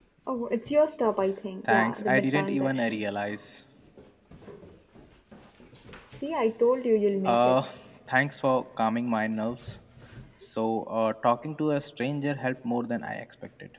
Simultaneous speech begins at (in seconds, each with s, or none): 1.7 s